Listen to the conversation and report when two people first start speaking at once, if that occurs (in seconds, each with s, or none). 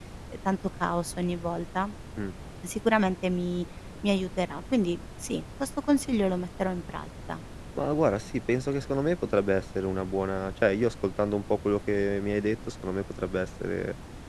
none